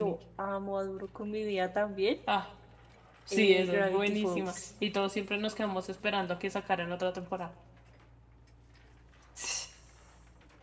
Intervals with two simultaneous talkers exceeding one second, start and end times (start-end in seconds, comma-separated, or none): 3.3-4.6